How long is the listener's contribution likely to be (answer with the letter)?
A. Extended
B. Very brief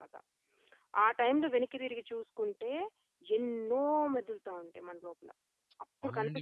A